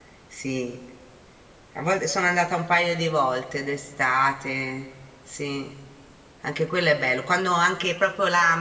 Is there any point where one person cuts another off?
No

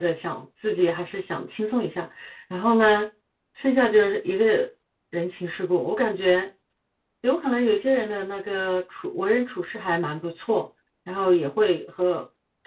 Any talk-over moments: No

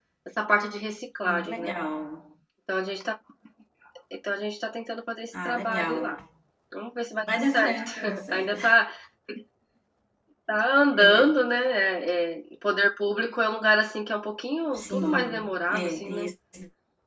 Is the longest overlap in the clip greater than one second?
Yes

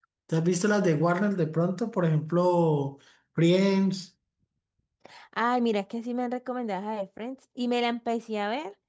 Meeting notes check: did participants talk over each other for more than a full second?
No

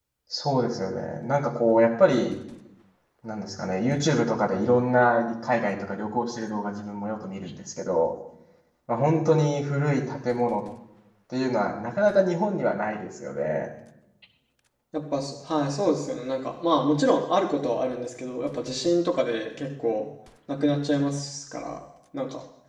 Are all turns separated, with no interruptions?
Yes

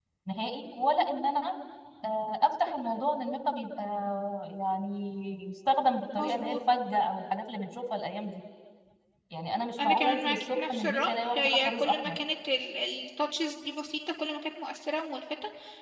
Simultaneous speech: Yes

